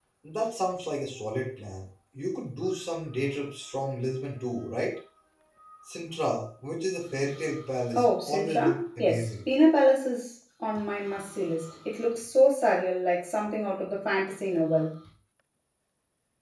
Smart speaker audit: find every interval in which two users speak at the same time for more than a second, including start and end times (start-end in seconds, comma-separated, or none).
7.9-9.3